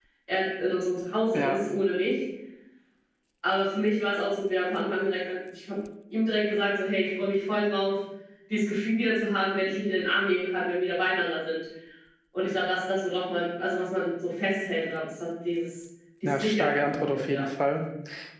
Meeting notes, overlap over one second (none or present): present